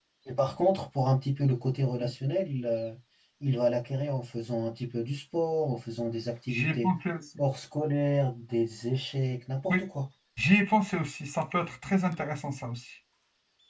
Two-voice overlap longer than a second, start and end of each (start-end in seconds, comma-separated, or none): none